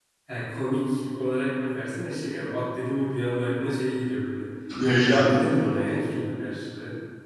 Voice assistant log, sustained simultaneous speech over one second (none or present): present